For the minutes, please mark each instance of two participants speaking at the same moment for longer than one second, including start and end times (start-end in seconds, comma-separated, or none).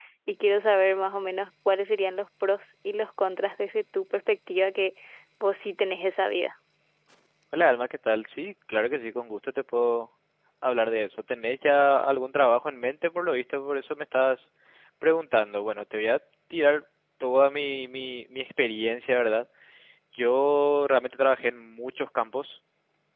none